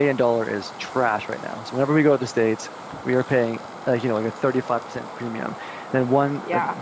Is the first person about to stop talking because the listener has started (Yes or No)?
No